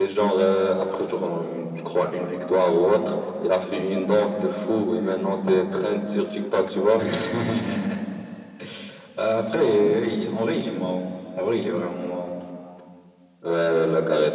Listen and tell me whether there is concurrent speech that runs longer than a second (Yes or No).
No